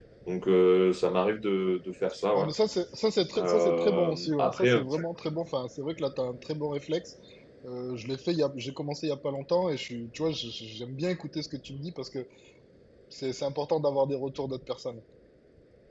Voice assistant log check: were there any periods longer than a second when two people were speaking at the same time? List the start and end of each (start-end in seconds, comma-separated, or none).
3.4-4.8